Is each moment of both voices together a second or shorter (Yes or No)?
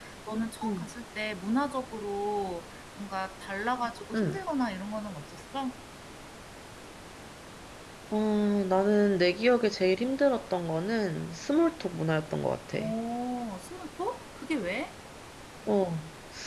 Yes